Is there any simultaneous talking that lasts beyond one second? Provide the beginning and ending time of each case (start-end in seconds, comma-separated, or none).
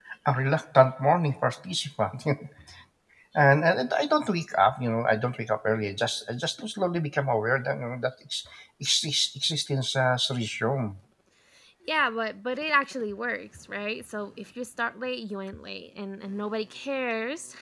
none